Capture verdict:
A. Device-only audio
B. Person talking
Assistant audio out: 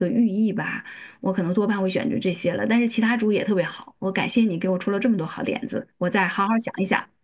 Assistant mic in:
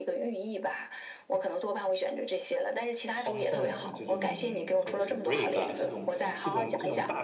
B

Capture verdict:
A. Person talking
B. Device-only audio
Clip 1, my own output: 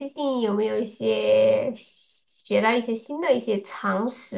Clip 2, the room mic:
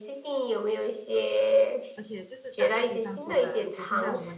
A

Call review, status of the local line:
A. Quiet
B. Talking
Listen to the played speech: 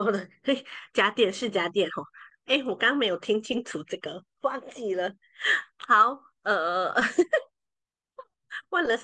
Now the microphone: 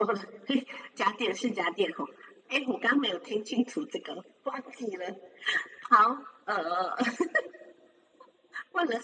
A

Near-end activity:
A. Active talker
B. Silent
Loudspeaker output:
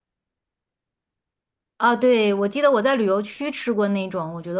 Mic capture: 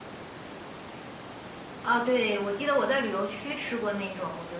B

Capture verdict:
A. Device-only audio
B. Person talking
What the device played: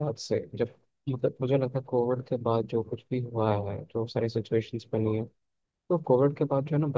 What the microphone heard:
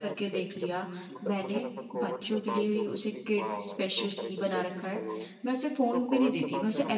B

